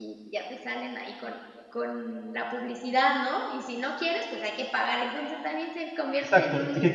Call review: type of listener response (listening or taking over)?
taking over